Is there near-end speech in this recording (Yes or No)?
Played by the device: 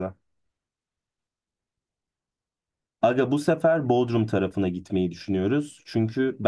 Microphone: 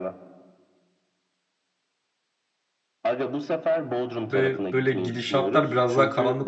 Yes